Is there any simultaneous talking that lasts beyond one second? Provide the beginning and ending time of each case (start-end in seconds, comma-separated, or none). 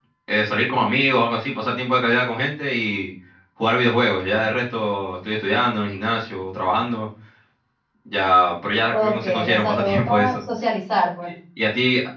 8.9-10.3